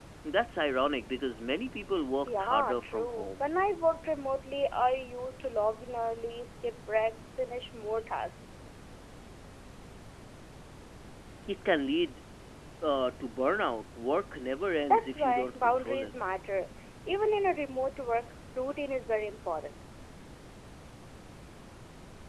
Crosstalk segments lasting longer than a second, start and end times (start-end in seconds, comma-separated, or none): 2.3-3.5, 14.8-16.1